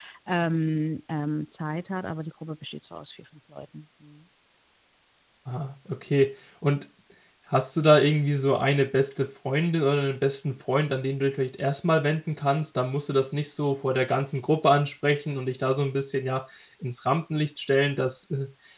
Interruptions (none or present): none